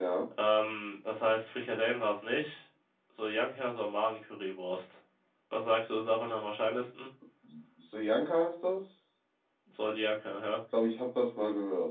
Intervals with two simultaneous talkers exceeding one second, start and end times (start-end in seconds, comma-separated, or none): none